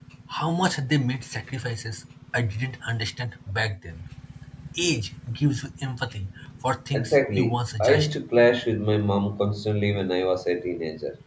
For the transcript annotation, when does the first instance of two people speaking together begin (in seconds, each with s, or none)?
6.9 s